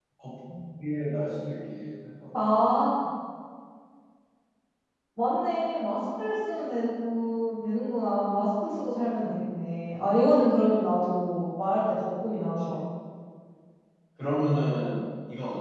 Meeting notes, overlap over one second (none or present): none